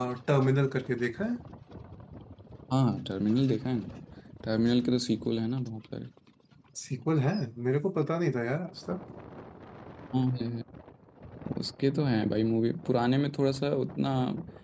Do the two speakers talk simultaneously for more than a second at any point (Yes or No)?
No